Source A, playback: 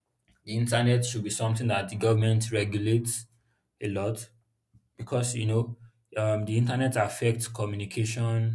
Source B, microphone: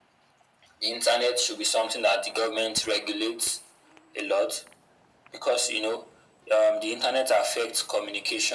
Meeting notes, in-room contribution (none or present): none